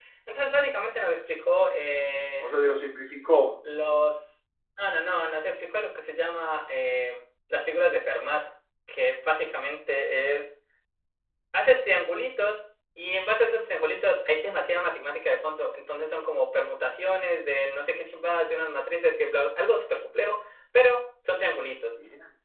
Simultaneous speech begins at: none

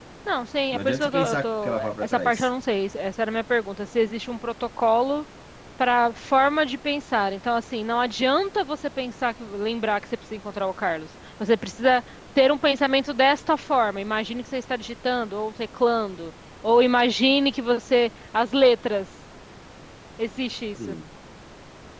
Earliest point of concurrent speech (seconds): 0.7 s

